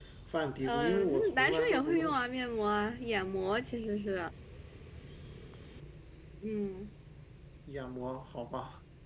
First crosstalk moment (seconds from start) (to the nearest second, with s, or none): 1 s